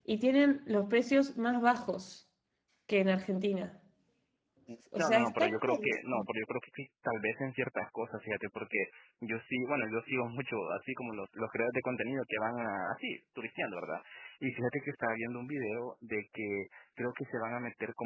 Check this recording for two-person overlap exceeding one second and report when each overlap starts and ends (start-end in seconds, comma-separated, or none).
5.0-6.2